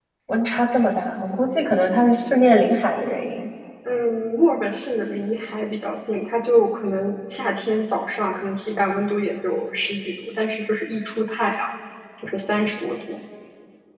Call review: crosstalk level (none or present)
none